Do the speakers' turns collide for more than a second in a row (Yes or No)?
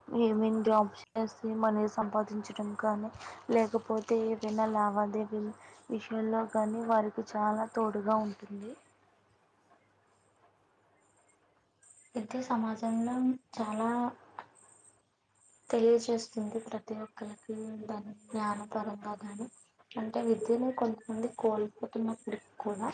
No